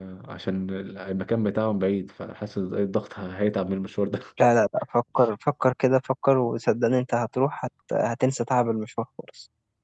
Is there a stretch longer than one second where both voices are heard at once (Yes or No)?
No